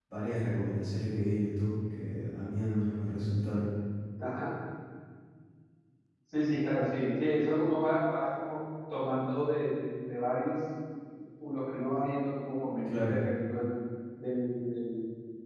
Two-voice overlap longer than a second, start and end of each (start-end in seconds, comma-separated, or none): none